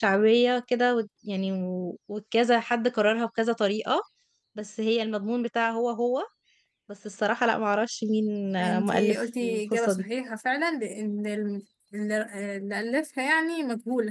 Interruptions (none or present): present